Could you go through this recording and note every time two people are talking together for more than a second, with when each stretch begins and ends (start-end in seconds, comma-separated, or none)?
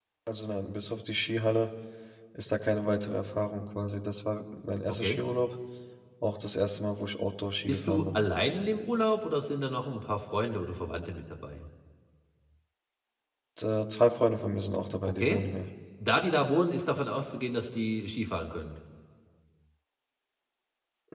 none